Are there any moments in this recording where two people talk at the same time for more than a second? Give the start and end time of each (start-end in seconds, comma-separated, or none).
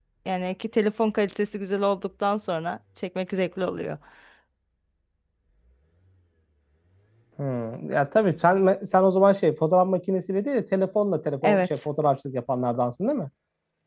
none